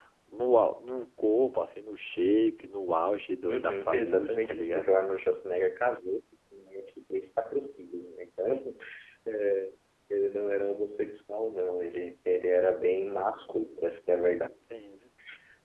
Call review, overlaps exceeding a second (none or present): present